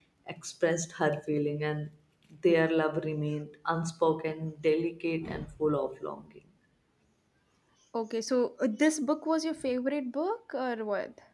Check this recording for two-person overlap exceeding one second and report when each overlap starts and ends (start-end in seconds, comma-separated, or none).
none